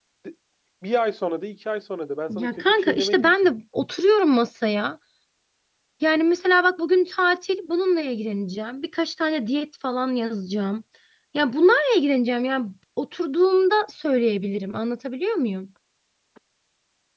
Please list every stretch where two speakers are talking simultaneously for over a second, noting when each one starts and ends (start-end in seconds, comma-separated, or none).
2.3-3.5